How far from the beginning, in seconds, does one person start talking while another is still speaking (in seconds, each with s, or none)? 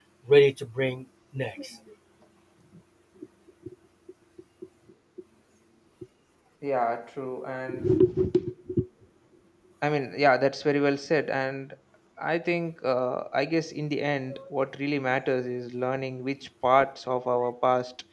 none